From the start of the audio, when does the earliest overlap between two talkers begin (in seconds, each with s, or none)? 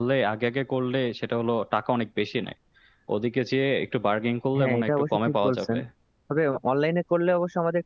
4.5 s